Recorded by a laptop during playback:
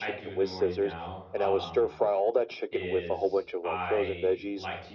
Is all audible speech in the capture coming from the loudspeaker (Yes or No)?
No